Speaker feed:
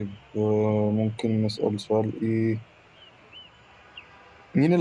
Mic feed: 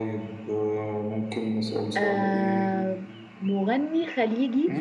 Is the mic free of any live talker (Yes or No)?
No